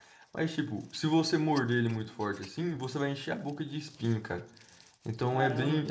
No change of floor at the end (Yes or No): No